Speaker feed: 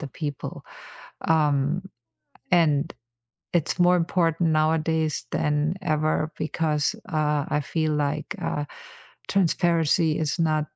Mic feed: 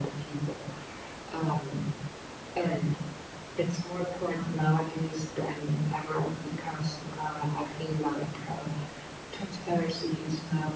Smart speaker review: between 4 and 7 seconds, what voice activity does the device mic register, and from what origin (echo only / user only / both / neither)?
echo only